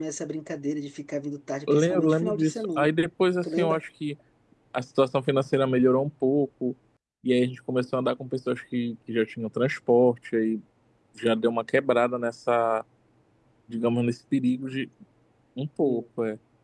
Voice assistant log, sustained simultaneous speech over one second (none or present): present